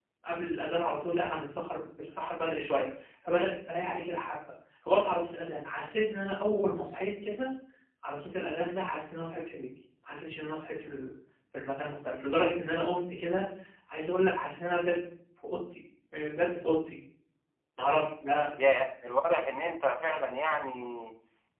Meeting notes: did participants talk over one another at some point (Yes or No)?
No